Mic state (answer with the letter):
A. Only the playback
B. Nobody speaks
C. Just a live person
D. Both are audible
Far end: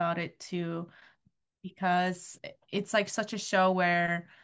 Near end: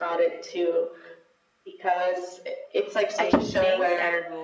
D